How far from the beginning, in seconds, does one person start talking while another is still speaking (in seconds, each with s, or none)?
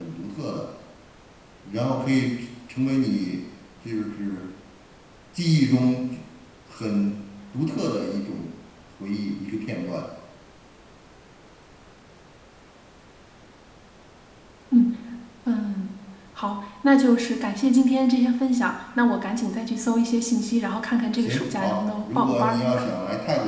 21.2 s